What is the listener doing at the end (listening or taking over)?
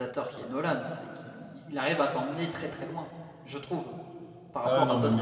taking over